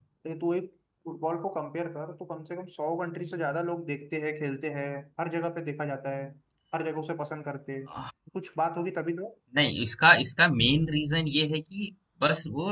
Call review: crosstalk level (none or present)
none